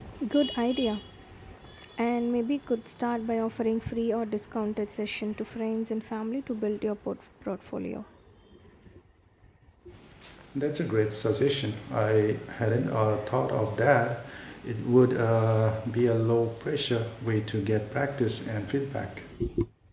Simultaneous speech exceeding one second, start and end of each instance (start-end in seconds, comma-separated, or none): none